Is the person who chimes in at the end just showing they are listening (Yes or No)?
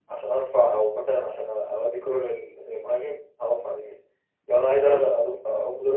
Yes